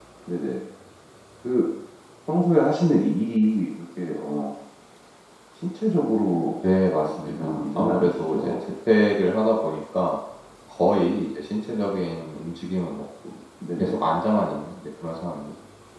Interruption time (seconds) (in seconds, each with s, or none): 7.0 s